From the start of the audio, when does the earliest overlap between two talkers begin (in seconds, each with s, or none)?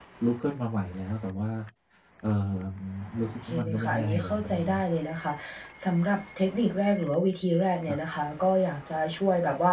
3.2 s